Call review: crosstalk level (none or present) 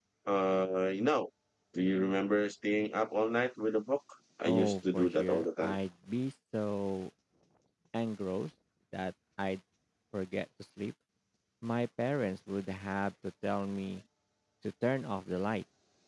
present